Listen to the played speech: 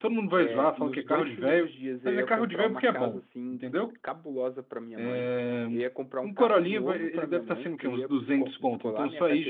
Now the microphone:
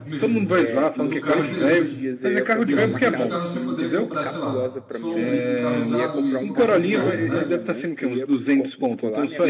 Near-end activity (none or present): present